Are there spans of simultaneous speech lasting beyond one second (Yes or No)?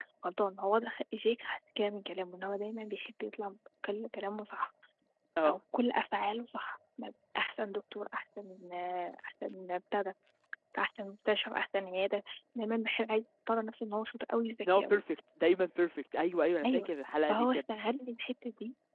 No